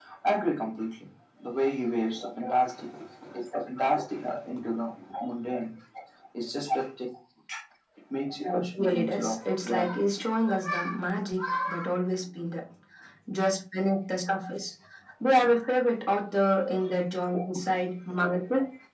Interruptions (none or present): present